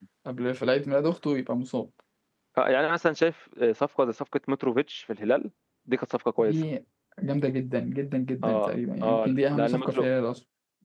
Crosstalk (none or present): present